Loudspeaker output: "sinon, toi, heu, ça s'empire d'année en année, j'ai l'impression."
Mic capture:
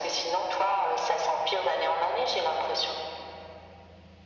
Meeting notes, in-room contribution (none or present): none